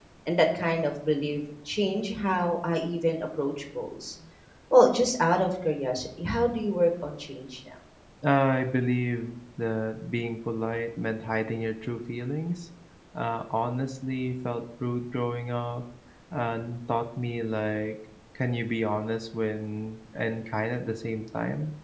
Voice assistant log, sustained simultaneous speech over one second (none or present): none